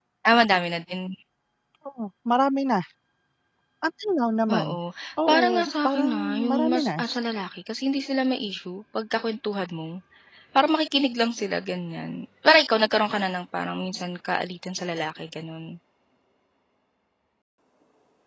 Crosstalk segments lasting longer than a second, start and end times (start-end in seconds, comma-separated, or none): 5.3-7.0